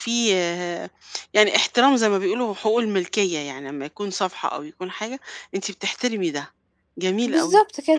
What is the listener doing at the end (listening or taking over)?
taking over